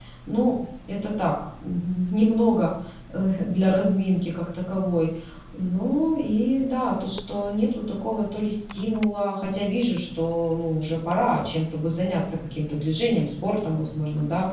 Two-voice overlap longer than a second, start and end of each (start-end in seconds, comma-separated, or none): none